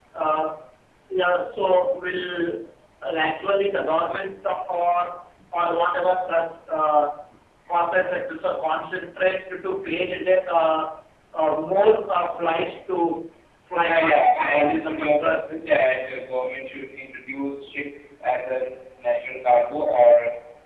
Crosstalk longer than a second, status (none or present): present